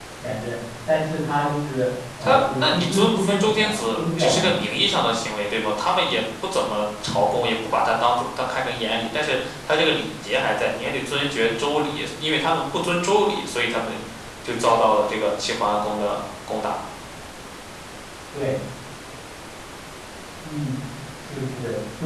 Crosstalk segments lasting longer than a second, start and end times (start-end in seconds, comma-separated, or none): 2.2-4.7